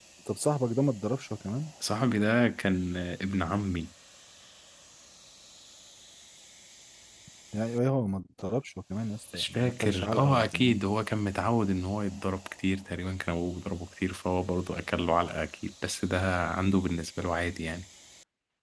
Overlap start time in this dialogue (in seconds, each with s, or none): 9.3 s